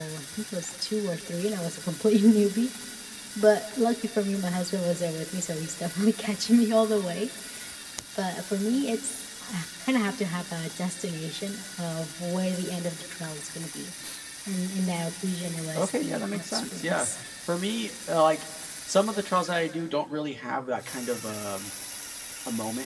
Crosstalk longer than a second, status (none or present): present